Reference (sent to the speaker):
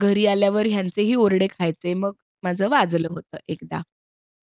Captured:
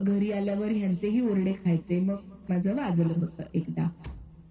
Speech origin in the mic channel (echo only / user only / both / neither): echo only